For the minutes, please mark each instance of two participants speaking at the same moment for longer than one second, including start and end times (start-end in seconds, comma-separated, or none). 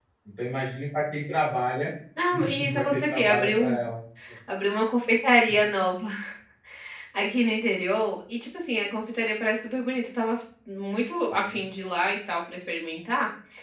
2.3-3.8